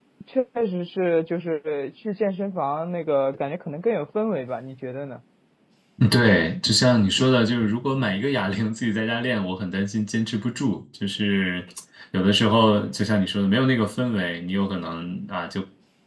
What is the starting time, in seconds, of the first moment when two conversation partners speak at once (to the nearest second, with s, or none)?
none